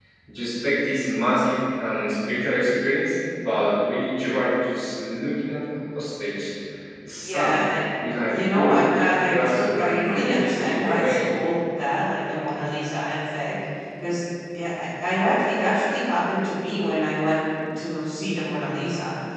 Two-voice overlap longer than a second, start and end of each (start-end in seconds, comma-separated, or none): 8.3-11.2